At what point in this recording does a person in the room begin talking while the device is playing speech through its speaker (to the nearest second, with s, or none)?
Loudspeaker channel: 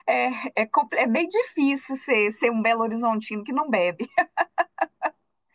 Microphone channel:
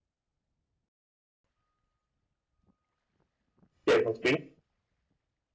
4 s